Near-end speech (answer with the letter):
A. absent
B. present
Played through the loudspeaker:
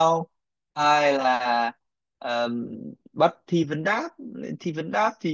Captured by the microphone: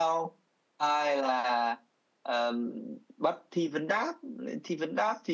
A